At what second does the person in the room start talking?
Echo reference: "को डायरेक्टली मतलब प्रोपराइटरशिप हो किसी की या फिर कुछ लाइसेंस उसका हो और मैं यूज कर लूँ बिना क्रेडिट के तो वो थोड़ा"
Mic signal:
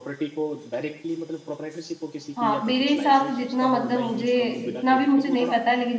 2.4 s

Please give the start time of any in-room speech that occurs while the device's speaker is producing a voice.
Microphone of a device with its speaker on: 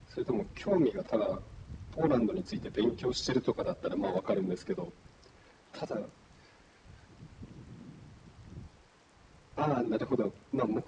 none

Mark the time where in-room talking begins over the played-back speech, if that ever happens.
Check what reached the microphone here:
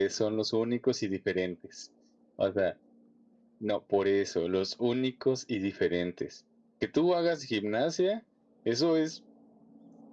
none

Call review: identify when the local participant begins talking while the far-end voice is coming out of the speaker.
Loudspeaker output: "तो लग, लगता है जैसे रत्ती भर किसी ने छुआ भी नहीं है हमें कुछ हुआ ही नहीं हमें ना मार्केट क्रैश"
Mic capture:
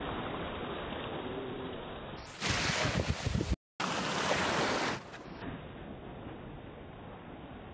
none

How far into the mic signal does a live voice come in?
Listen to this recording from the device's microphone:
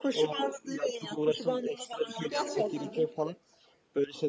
2.3 s

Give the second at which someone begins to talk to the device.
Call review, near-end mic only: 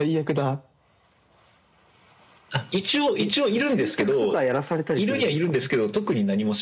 none

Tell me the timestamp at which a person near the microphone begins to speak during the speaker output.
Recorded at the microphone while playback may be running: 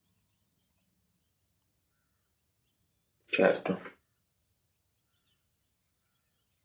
3.3 s

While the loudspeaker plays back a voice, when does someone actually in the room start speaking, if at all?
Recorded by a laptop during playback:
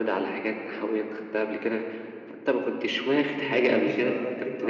3.4 s

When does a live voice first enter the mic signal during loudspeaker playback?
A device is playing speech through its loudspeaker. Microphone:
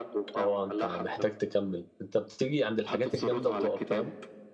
0.3 s

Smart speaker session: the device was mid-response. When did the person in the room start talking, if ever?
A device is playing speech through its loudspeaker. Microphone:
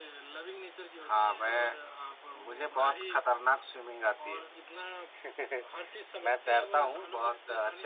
none

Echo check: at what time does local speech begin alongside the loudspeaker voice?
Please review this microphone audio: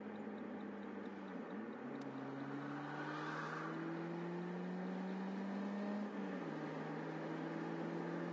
none

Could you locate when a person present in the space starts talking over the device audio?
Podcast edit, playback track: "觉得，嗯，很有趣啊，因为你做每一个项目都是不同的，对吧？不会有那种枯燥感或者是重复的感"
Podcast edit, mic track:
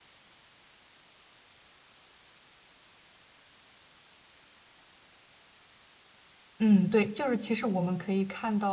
6.6 s

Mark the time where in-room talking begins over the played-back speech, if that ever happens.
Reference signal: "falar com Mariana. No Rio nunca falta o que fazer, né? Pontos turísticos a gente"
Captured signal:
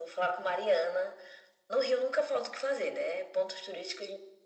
none

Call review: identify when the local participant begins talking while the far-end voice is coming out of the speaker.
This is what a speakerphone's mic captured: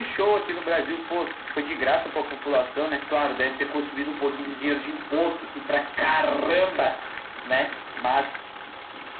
none

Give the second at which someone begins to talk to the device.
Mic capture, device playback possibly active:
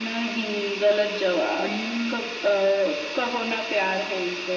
1.6 s

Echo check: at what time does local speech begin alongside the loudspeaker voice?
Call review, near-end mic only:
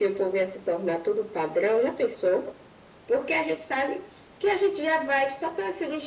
none

